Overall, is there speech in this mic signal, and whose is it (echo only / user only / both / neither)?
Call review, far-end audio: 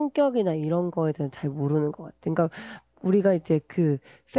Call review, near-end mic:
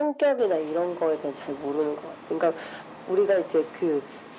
echo only